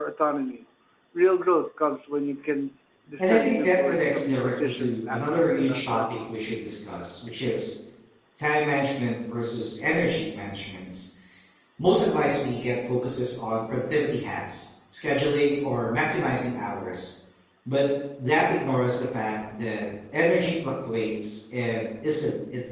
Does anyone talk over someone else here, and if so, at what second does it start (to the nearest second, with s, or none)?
3 s